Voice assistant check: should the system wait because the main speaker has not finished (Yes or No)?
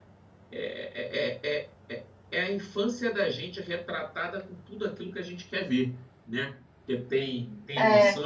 Yes